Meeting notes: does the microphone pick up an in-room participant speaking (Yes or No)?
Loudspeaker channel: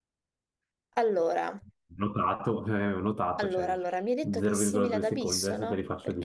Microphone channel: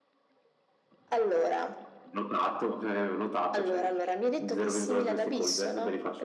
No